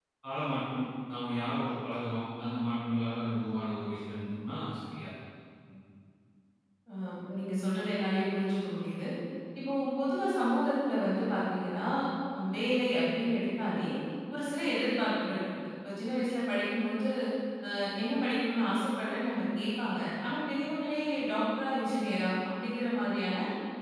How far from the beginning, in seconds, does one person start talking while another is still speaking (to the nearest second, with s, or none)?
none